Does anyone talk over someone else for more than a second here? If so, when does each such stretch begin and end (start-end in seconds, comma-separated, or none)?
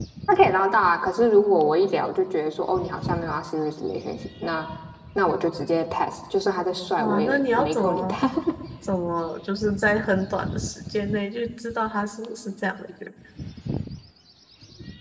7.0-8.2